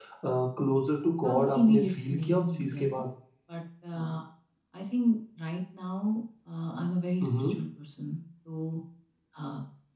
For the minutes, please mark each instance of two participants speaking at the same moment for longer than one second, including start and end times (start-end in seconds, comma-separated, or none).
1.2-3.0